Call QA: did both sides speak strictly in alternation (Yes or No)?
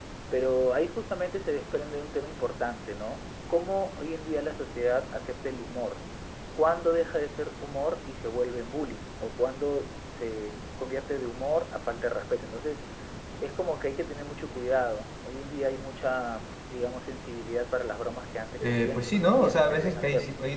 No